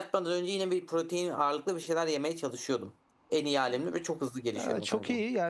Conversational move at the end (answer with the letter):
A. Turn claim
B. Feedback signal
A